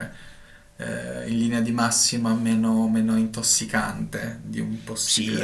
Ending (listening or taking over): taking over